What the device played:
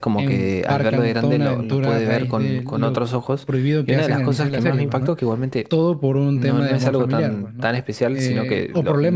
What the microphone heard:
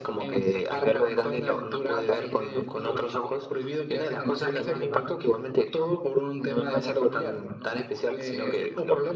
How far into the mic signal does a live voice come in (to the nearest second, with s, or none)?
none